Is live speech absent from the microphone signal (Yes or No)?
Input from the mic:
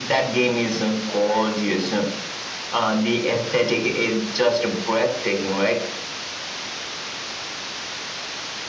Yes